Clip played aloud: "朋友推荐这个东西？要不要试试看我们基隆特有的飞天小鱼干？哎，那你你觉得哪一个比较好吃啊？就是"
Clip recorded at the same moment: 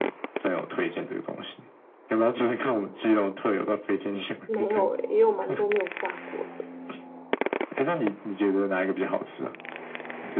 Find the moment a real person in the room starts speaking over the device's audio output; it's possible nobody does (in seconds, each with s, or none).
4.5 s